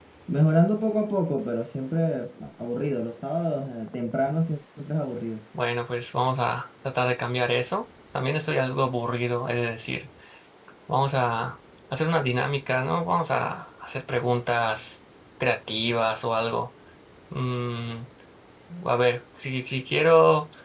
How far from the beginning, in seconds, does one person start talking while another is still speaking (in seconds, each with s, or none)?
none